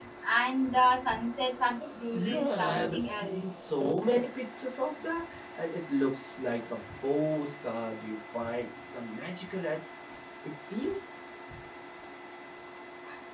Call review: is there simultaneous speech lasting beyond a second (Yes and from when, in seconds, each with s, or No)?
Yes, from 2.1 s